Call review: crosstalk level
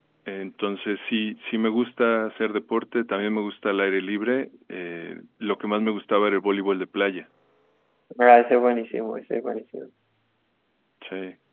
none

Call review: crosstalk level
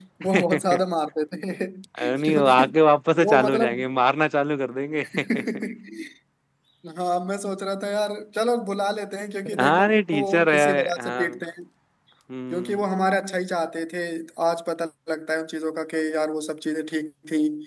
present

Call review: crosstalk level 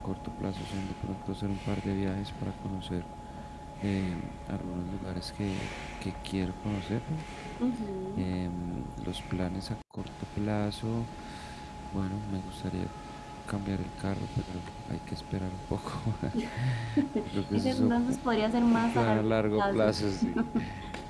present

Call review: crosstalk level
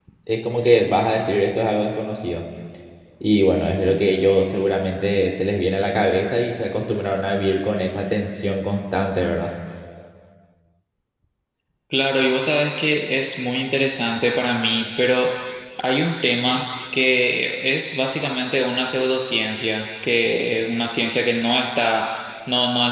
none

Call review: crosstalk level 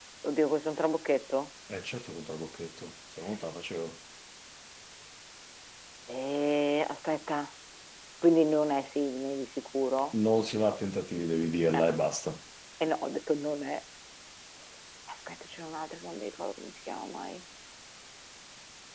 none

